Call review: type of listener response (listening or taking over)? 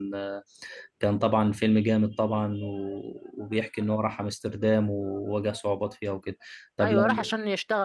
taking over